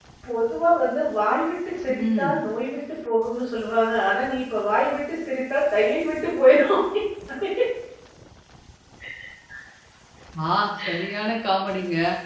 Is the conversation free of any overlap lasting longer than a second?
Yes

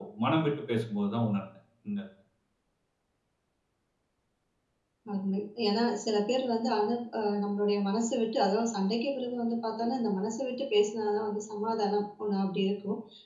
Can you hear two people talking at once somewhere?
No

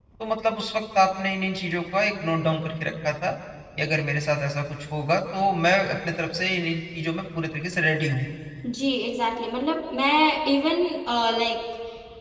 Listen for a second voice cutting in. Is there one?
No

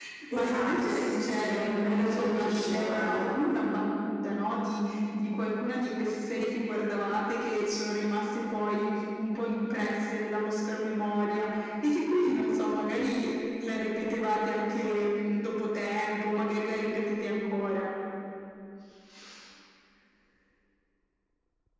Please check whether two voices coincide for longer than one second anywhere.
Yes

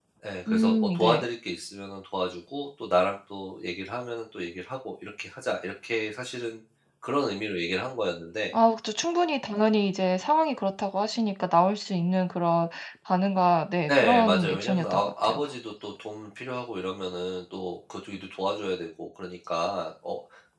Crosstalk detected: Yes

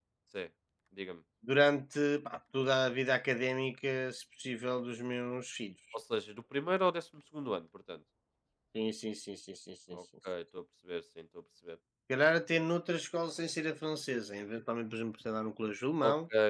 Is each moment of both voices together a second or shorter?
Yes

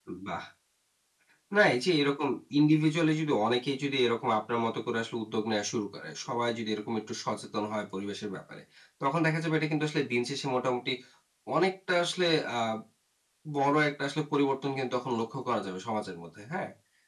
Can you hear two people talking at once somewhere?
No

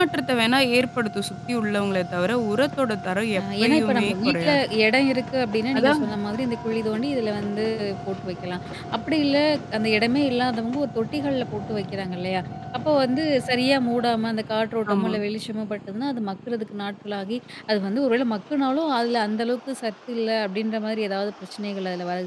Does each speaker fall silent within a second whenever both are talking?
No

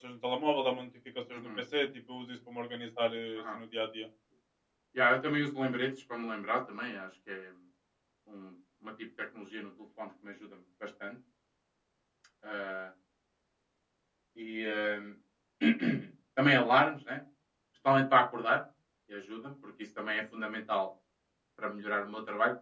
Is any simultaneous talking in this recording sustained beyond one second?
No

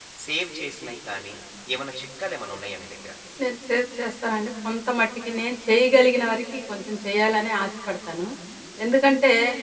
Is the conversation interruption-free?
Yes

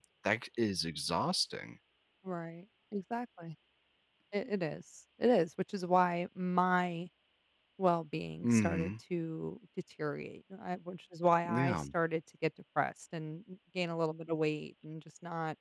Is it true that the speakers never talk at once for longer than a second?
Yes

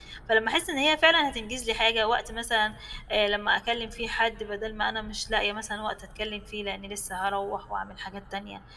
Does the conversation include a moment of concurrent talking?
No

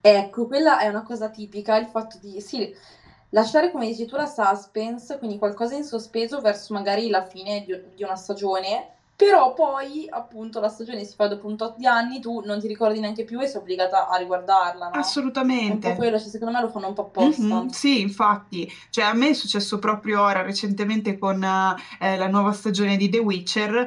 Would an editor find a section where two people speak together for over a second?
No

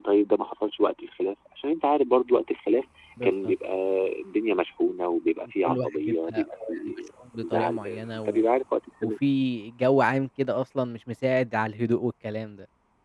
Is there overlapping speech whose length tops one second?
Yes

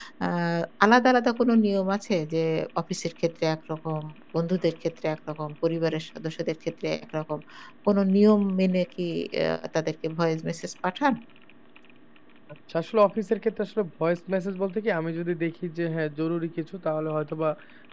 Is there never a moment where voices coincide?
Yes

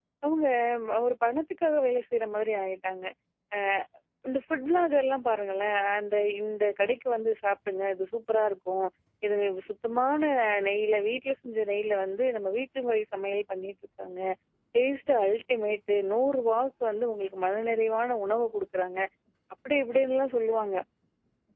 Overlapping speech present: No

